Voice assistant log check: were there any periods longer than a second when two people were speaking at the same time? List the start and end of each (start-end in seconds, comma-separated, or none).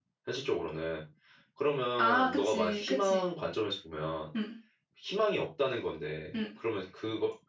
2.0-3.2